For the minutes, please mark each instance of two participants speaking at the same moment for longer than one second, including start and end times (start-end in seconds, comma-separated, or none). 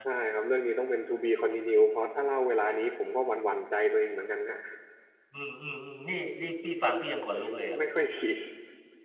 none